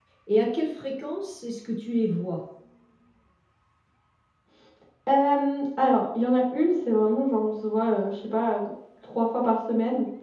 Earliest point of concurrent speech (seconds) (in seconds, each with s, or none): none